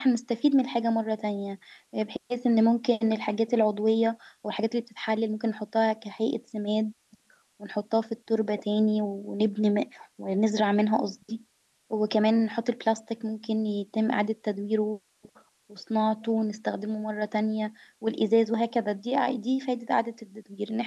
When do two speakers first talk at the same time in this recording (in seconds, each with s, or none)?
none